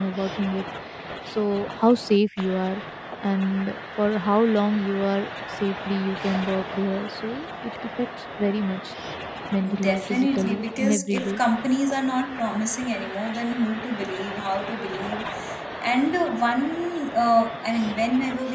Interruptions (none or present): present